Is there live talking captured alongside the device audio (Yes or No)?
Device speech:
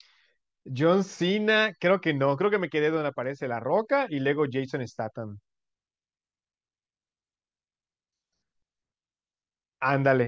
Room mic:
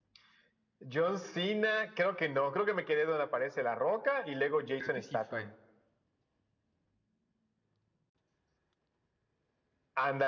Yes